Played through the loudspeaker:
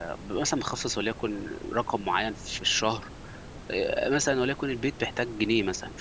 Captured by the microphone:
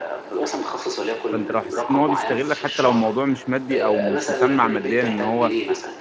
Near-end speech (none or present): present